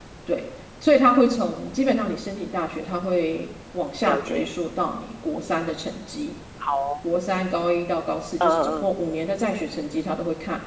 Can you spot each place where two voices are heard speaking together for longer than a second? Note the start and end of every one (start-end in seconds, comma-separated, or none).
none